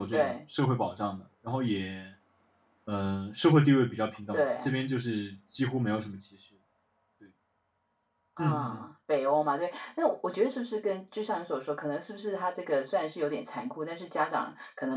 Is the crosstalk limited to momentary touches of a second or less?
Yes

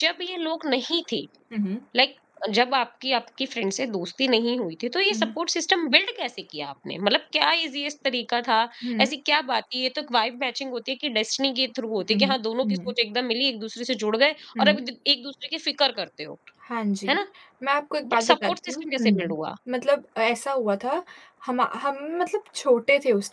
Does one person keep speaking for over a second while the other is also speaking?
Yes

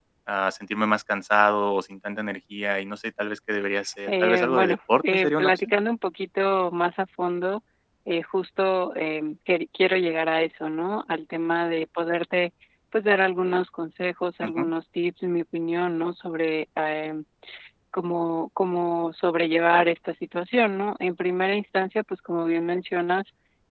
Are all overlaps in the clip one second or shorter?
No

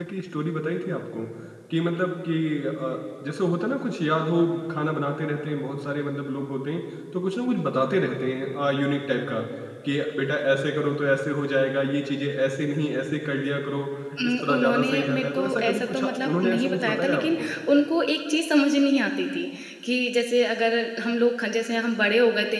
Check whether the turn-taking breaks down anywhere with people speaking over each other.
Yes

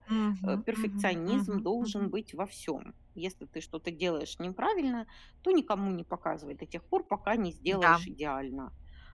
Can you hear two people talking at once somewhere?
Yes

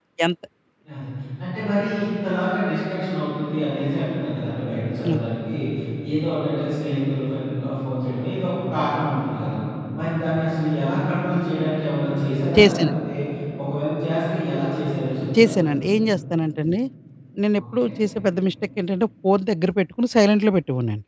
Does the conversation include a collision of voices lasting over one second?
No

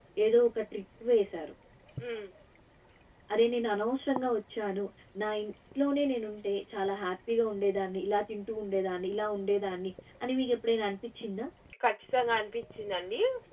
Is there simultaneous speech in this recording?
No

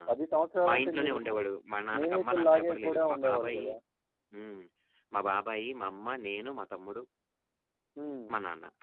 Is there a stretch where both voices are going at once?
Yes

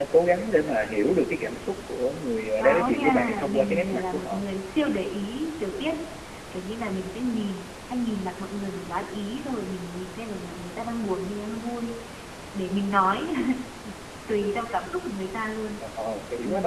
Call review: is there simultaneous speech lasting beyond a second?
Yes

